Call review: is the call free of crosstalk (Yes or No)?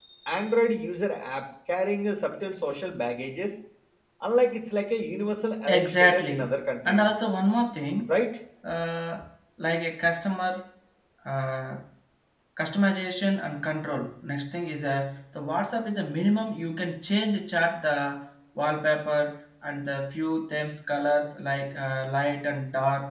No